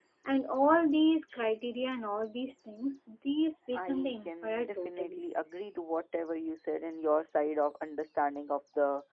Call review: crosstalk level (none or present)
present